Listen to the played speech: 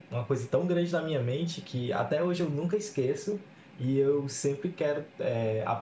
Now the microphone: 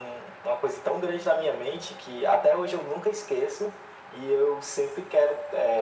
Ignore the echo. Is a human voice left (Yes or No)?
No